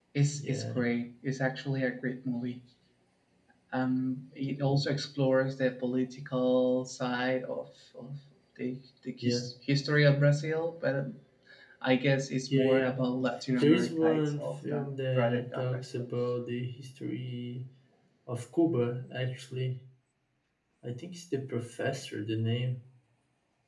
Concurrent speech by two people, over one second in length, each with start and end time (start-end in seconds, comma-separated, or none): 13.6-16.0